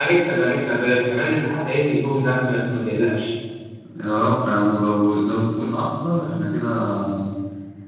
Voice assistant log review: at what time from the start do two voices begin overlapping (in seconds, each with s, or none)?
none